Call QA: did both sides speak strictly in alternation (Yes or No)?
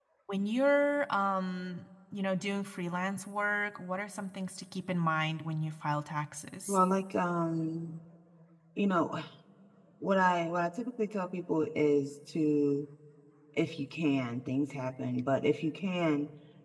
Yes